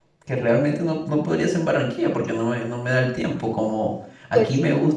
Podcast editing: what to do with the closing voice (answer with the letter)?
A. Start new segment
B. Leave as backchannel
B